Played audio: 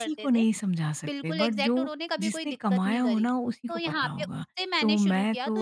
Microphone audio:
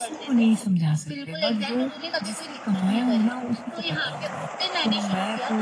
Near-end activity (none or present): none